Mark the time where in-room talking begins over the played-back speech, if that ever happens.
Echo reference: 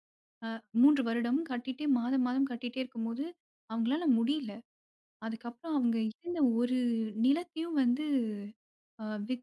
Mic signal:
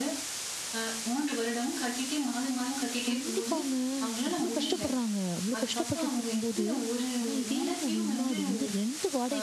3.1 s

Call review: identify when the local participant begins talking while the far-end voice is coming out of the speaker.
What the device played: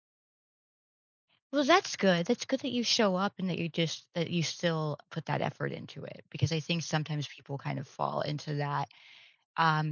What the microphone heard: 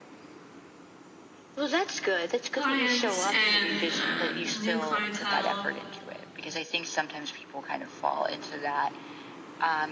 2.5 s

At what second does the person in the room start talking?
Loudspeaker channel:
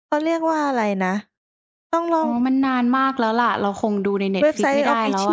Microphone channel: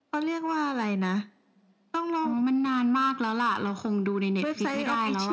none

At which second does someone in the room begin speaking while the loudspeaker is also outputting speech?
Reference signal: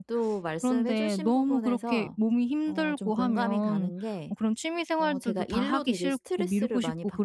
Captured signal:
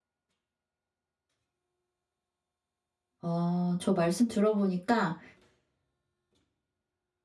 3.2 s

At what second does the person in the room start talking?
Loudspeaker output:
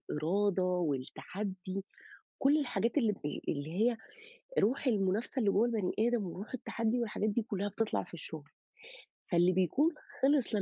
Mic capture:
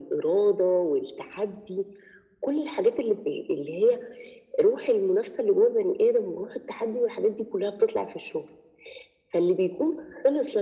none

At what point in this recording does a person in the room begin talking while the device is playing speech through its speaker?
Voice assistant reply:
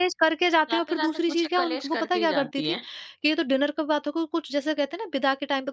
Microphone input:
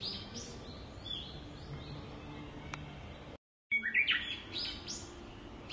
none

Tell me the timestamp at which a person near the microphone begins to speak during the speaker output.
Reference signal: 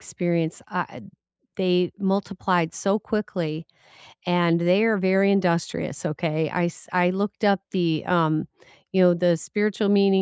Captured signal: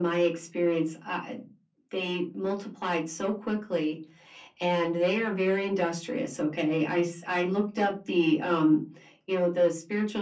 none

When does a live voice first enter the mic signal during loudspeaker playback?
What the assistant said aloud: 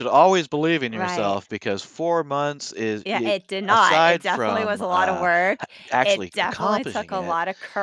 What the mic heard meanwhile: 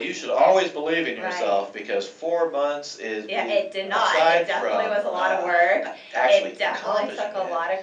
none

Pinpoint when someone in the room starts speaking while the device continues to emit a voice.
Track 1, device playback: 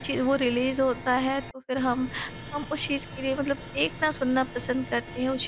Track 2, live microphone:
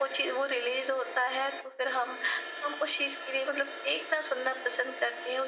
none

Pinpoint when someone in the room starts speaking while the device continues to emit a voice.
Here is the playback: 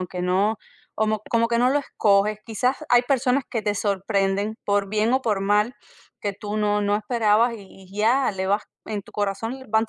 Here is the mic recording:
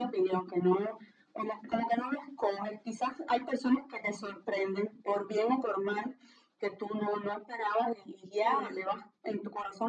8.4 s

